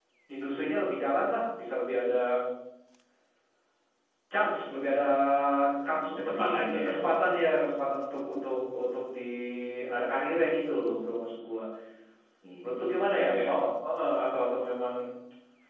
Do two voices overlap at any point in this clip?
Yes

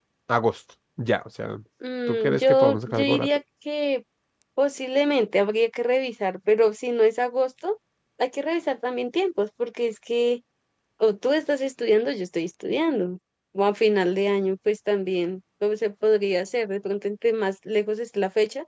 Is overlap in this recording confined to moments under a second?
No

